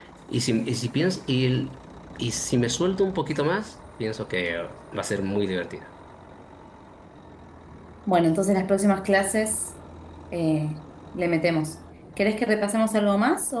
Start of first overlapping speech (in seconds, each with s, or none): none